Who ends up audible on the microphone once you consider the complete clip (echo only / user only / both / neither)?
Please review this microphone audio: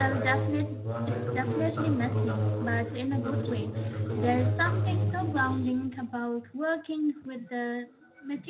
both